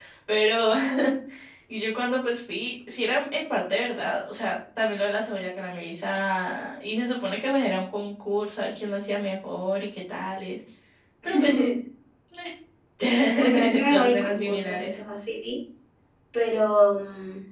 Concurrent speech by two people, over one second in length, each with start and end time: 13.3-15.0

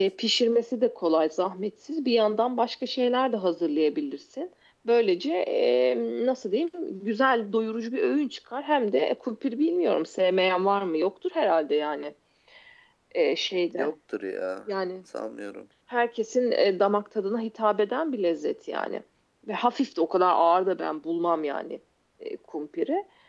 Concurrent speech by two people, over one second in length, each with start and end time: none

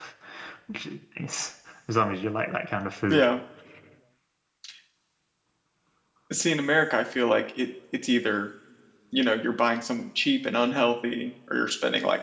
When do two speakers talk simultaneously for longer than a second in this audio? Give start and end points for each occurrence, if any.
none

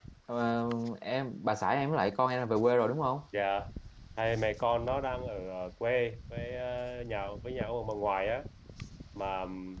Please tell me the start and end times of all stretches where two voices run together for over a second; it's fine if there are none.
none

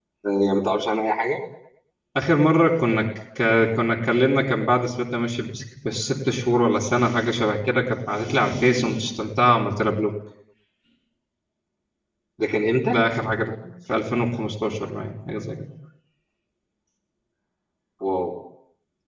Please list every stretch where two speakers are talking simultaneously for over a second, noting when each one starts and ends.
none

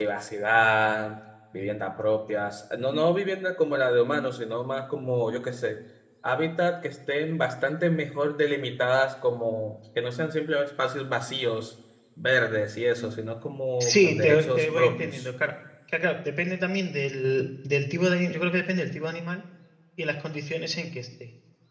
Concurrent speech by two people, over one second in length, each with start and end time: 13.8-15.3

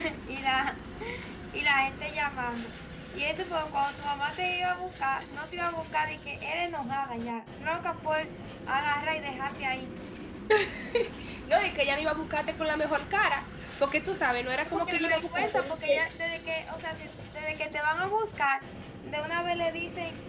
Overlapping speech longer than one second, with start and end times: 14.7-16.0

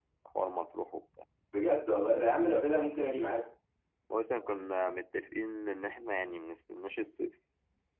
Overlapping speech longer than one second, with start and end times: none

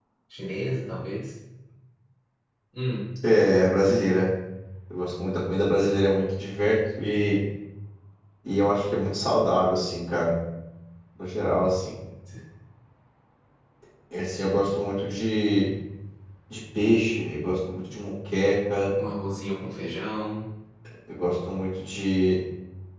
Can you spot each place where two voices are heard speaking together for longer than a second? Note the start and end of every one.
none

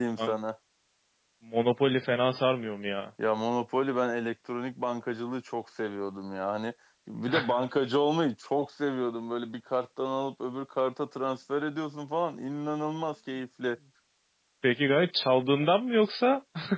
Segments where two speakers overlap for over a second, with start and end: none

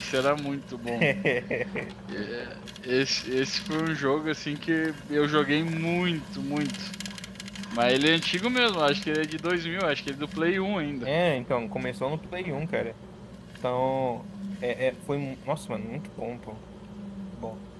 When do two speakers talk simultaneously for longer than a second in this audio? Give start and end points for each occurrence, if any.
none

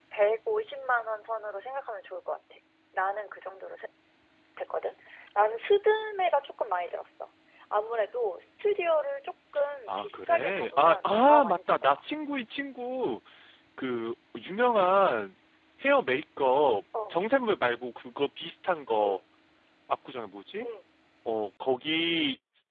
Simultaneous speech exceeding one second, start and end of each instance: 9.9-12.0

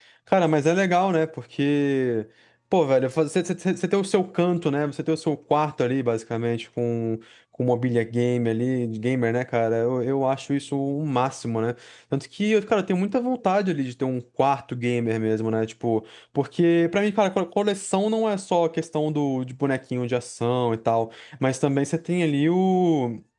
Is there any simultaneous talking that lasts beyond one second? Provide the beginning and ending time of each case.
none

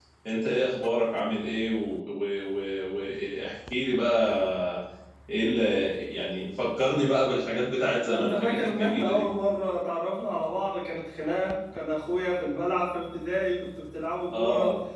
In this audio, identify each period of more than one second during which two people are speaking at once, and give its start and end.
8.0-9.3

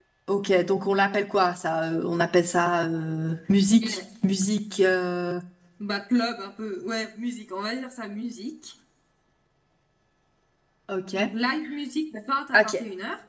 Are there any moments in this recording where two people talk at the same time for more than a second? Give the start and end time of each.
none

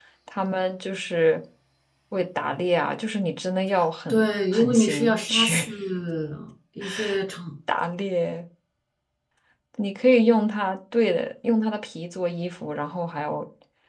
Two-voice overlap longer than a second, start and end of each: 4.1-5.7

